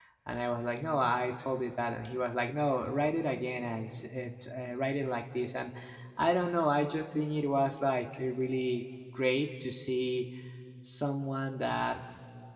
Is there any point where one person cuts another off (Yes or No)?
No